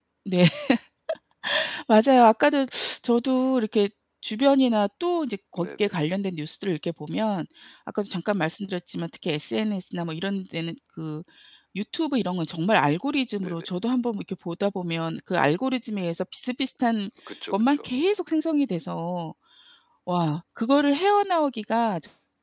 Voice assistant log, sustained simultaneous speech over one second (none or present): none